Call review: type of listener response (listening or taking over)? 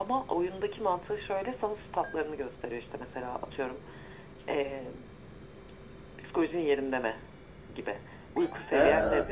taking over